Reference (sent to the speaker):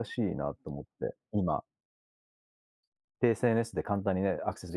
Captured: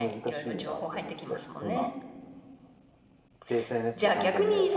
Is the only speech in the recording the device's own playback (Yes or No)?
No